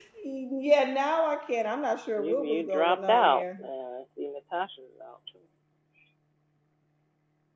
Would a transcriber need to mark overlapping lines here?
Yes, from 2.2 s

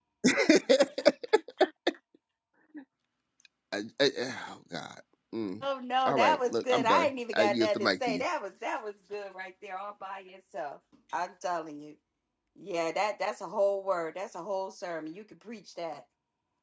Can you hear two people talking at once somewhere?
Yes, from 6.1 s

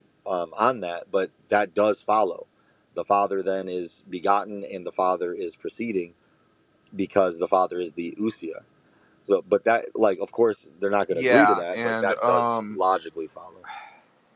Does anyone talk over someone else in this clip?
Yes, from 11.1 s

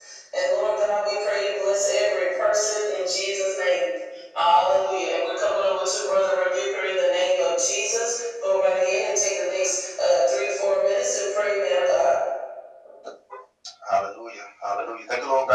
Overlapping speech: No

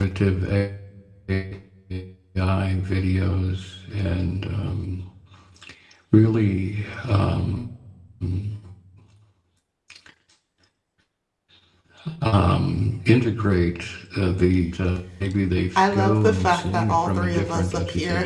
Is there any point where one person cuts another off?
Yes, from 15.8 s

